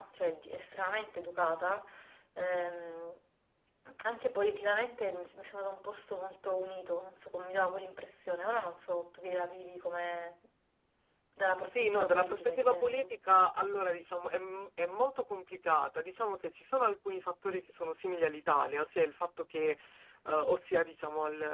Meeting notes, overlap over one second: present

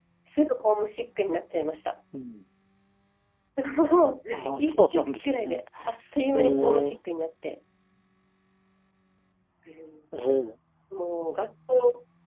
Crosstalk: present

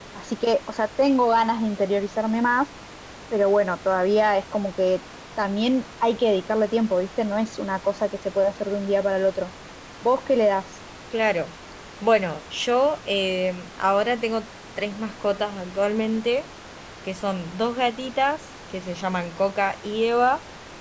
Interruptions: none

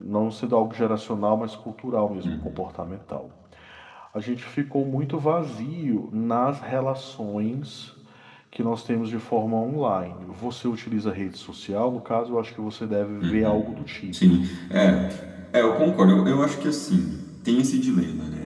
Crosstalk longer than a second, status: none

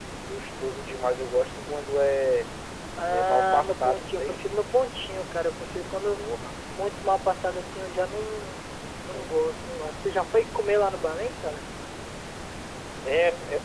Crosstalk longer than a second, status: present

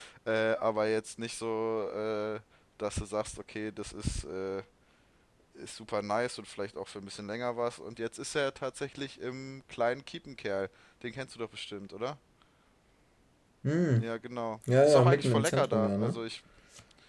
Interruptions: present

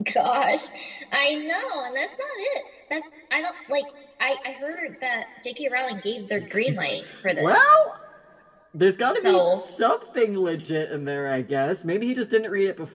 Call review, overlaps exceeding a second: none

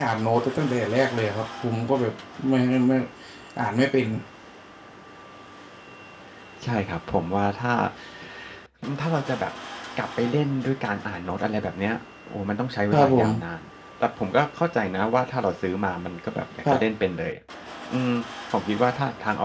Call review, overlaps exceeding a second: none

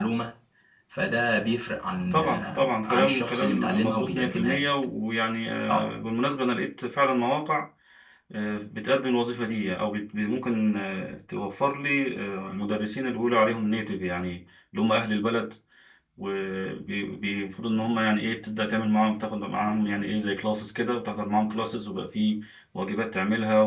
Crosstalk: present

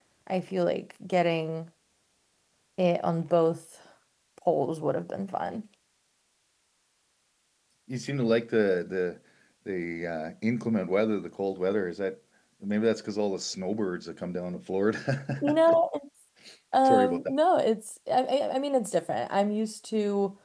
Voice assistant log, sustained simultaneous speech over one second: none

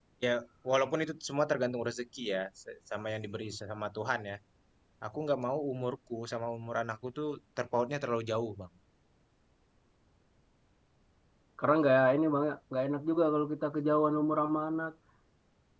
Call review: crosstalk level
none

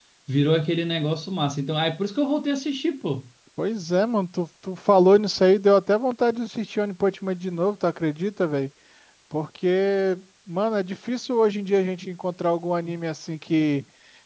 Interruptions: none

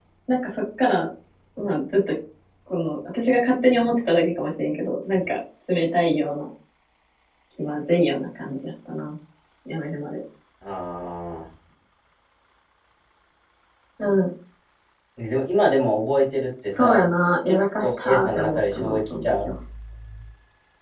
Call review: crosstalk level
present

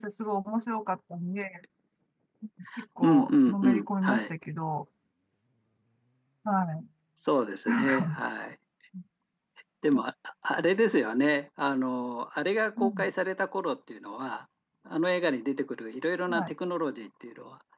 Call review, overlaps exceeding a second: present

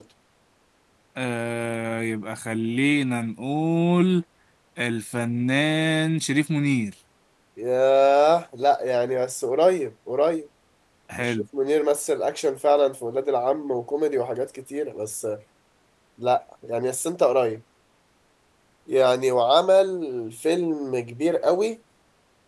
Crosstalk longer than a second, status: none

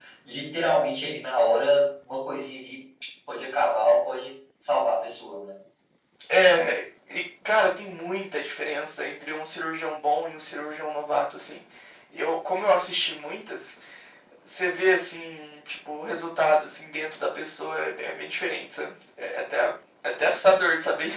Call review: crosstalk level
none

